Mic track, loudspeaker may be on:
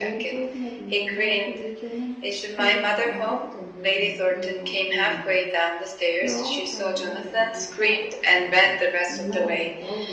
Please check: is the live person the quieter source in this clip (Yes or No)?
Yes